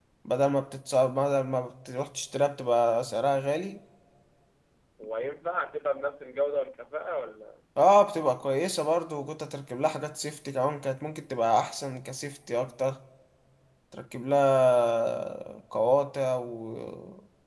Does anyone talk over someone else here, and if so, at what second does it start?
none

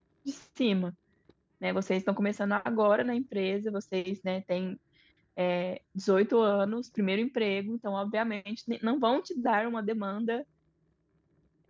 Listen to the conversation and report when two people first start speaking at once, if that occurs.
none

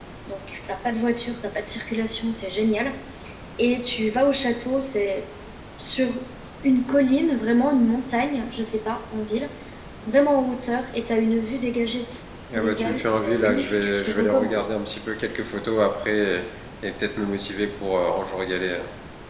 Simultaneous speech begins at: 12.5 s

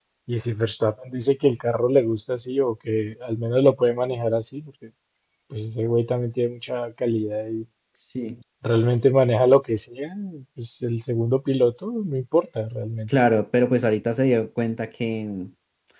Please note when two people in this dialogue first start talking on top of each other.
none

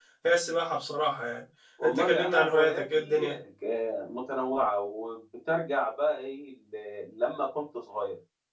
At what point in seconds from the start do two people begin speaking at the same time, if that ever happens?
1.8 s

